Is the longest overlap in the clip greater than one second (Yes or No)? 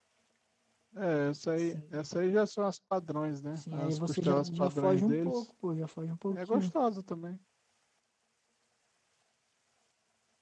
Yes